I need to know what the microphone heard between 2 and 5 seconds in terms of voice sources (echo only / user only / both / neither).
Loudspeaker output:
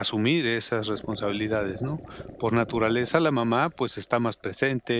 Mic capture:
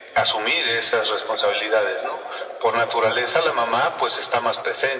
echo only